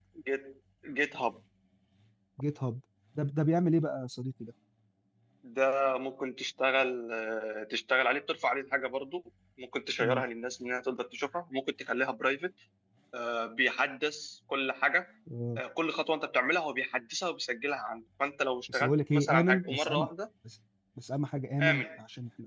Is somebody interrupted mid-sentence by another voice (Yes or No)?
Yes